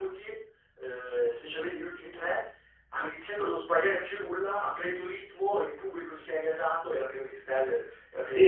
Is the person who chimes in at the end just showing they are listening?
No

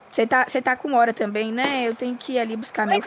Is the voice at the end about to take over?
Yes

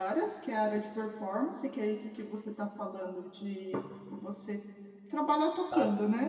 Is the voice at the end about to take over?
No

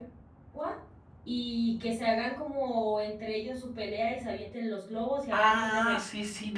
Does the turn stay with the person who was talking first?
No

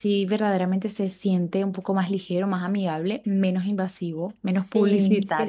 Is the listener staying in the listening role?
No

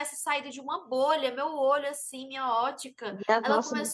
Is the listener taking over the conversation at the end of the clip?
No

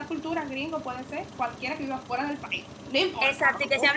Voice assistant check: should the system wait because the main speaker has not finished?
No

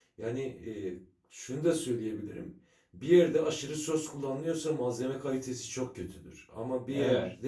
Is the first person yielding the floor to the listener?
No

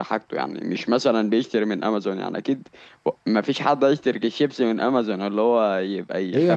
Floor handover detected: Yes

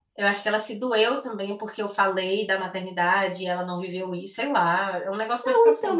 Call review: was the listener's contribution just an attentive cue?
No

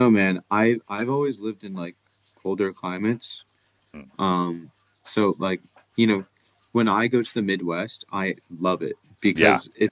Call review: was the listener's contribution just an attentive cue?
Yes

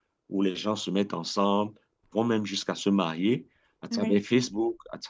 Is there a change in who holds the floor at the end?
No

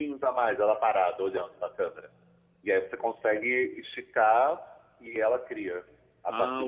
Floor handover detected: Yes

